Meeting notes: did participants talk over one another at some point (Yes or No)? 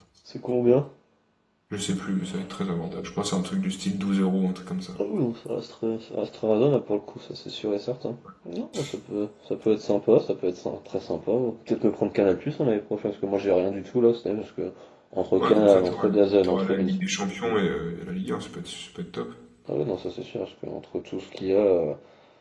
Yes